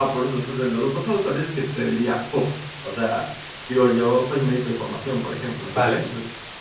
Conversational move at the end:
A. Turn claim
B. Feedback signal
B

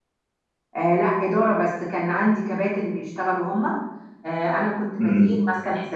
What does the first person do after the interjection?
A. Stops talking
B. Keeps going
B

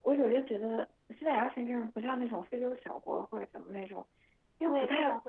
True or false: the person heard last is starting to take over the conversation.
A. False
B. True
B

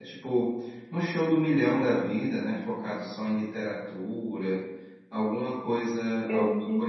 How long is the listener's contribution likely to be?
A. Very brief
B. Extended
A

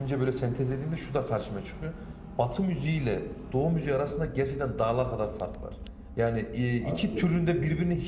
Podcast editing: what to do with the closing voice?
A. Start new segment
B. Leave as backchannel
B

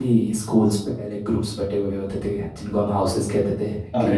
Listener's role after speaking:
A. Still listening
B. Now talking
B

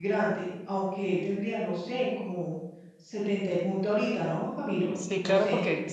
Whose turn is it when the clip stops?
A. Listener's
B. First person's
A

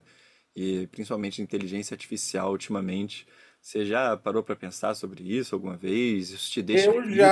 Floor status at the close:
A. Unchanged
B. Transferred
B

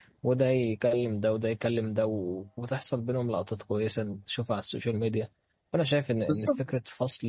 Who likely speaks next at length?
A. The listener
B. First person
B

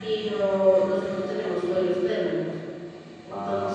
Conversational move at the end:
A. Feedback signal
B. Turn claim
A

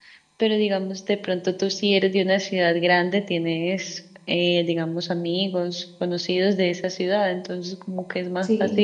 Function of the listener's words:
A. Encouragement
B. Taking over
A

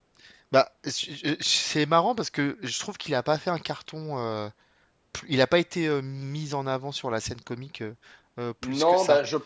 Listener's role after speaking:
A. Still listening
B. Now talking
B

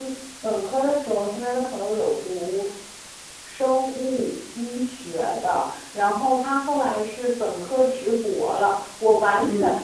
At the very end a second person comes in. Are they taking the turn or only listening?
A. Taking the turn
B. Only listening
B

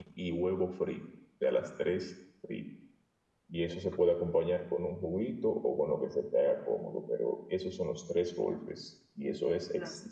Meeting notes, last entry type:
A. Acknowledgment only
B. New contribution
A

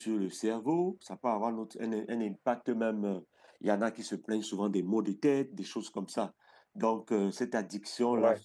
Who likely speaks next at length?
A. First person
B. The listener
A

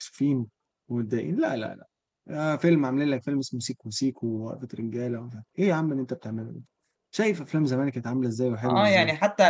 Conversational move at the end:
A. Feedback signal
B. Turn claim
B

